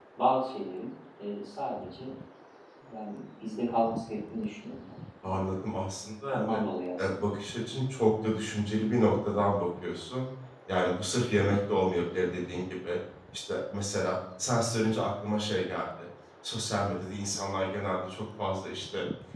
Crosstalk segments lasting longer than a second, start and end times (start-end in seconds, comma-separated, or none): none